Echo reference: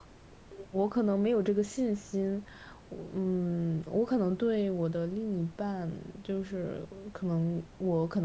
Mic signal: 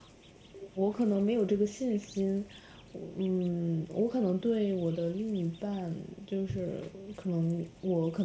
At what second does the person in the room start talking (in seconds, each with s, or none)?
none